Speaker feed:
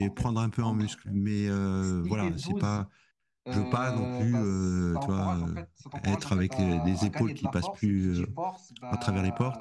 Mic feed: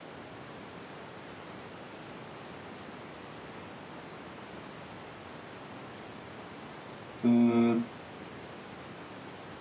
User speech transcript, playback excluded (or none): euh,